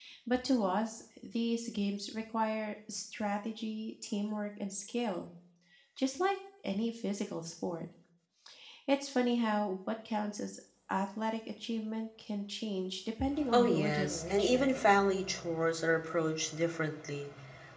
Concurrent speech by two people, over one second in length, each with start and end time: 13.5-14.7

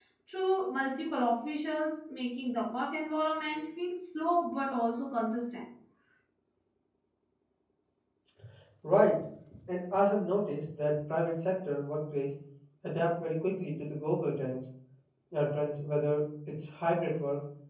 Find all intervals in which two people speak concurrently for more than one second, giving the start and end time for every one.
none

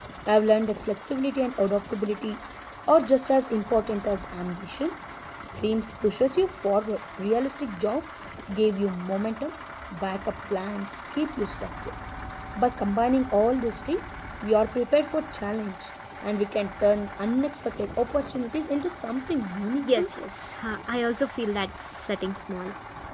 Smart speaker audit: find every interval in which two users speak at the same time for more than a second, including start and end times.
none

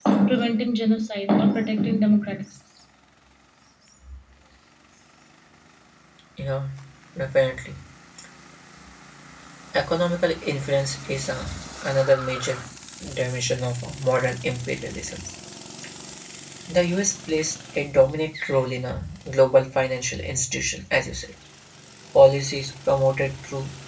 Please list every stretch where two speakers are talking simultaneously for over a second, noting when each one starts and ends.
none

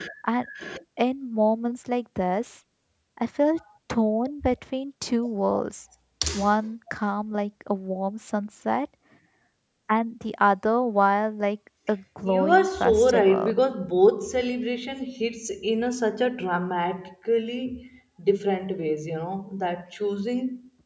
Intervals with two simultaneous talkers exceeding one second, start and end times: 12.3-13.5

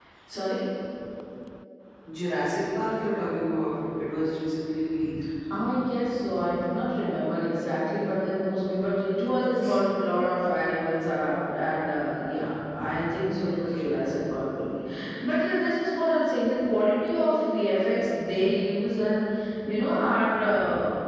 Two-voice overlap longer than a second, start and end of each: none

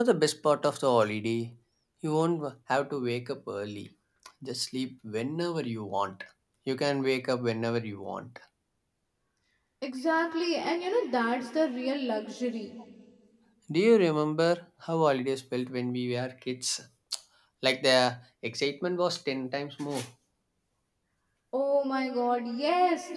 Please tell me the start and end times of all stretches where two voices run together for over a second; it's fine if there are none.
none

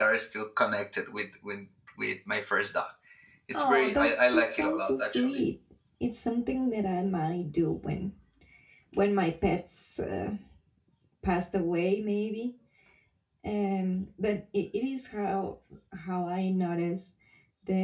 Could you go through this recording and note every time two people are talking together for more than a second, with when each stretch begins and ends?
3.5-5.4

